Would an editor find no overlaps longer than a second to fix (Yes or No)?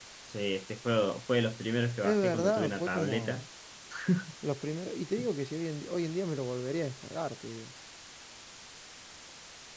No